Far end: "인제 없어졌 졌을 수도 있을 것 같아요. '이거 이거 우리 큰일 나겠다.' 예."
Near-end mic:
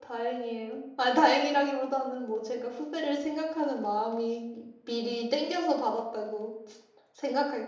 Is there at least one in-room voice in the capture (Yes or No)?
Yes